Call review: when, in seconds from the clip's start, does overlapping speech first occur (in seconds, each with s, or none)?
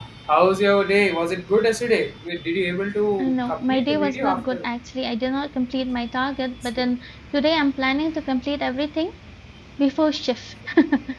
3.2 s